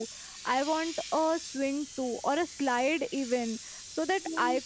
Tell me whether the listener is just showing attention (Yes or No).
Yes